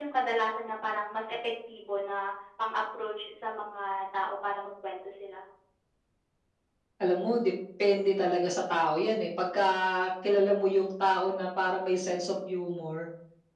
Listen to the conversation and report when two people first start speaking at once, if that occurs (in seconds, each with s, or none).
none